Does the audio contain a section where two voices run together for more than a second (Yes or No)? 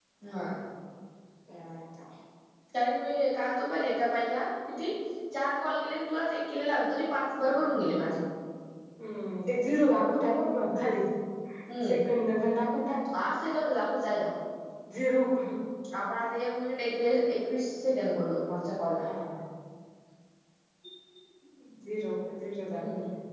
No